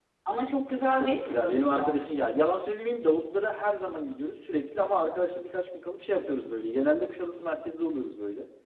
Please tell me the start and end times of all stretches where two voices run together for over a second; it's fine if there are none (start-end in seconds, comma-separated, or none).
0.9-2.2